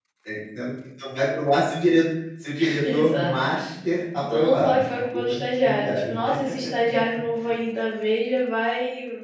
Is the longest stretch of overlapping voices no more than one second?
No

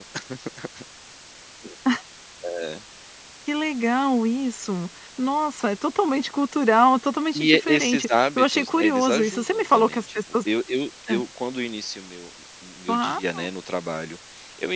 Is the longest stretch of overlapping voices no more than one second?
No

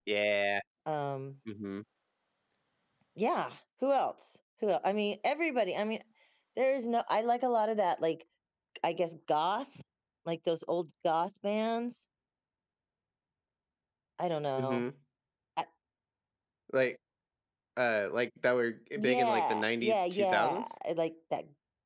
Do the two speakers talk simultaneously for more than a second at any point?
Yes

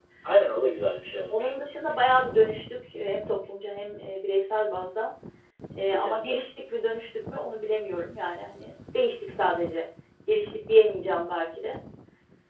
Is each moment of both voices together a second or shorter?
Yes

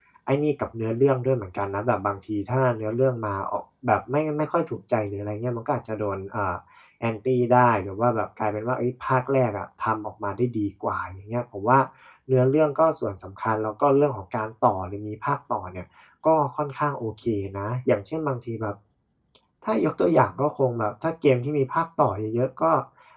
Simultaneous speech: No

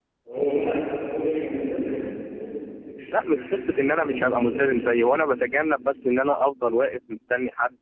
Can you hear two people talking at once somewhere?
Yes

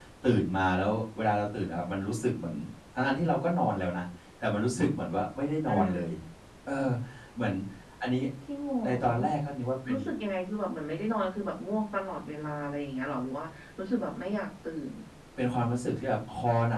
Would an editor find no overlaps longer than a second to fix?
Yes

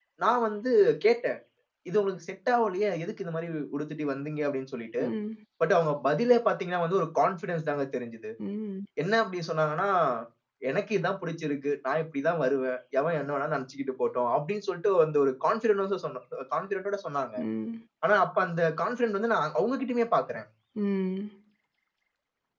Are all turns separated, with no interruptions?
Yes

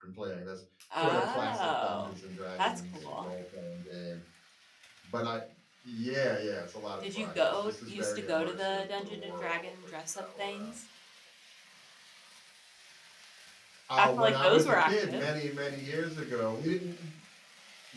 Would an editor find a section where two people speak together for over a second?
Yes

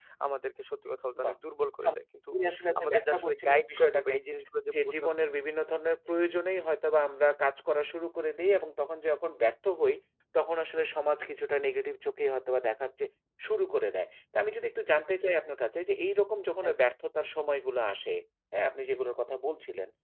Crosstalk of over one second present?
Yes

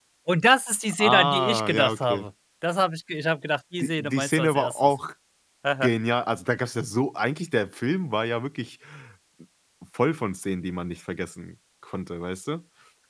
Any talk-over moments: Yes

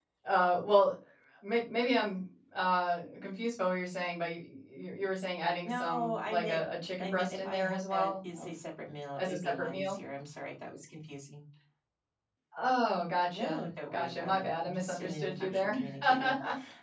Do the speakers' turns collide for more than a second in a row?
Yes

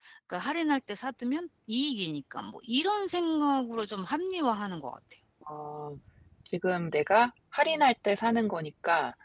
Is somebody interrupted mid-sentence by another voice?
No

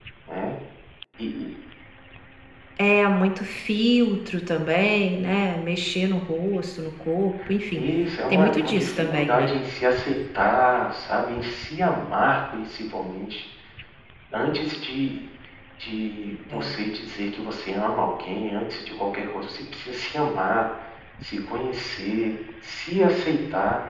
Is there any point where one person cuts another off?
Yes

